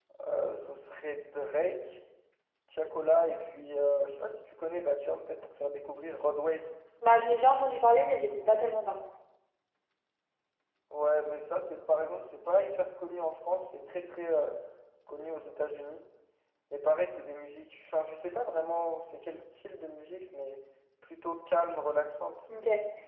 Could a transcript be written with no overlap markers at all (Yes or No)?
Yes